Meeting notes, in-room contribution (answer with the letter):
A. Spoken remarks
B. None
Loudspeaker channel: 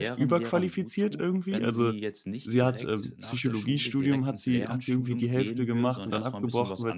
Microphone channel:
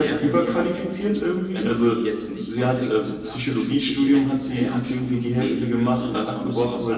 B